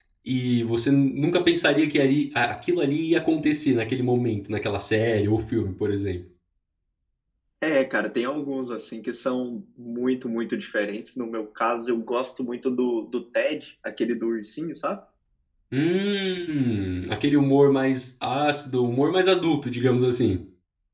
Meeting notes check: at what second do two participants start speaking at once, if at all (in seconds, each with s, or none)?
none